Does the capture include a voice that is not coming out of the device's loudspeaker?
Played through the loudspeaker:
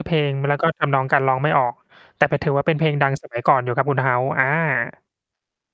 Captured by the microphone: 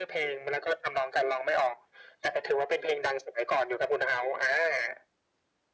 No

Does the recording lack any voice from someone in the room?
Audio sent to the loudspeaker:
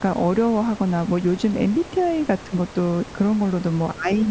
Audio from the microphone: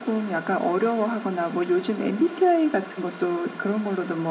Yes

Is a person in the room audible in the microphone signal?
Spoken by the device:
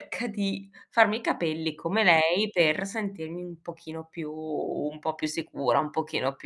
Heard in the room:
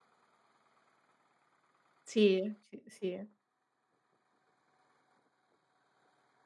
Yes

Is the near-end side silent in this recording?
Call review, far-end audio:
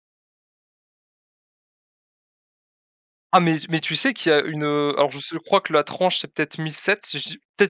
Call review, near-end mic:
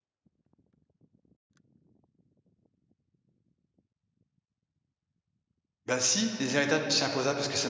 No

